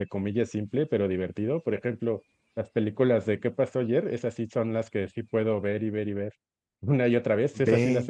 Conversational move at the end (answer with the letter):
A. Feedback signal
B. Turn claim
A